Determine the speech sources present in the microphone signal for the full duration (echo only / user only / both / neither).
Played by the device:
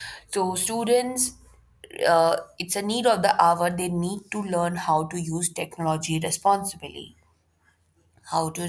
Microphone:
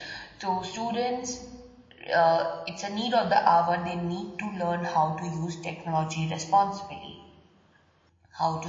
echo only